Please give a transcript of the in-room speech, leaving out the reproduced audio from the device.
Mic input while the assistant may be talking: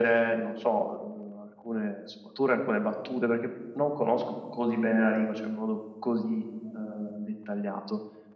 none

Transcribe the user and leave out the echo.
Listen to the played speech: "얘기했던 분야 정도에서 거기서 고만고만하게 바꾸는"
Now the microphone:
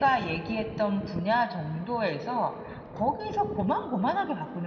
none

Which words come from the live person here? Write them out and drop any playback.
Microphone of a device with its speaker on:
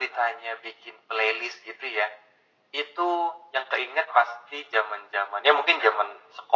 none

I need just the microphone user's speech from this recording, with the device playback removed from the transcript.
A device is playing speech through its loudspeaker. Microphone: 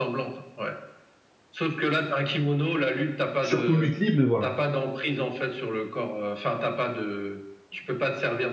surtout lutte libre, mais voilà.

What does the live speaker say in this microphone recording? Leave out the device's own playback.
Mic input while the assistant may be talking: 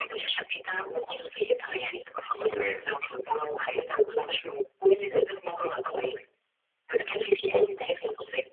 تمام.

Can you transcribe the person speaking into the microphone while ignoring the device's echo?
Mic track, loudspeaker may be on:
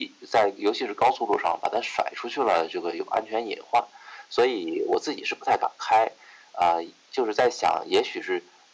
none

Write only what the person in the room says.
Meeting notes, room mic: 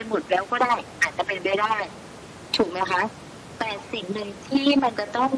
none

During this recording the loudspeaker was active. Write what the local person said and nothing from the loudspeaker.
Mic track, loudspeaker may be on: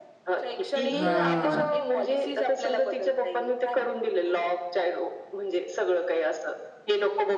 हां.

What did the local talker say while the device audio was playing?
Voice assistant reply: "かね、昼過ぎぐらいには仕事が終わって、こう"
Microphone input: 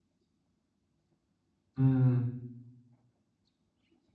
うん。

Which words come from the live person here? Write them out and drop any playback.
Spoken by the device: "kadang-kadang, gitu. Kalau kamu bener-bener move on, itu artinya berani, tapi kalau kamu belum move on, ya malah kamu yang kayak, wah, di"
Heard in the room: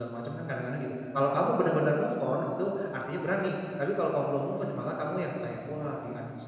none

